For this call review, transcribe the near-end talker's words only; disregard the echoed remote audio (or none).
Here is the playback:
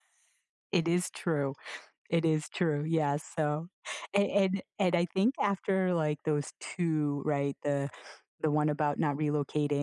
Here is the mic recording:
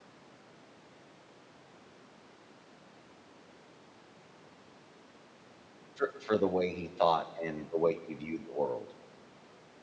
For for the way he thought and the way he viewed the world.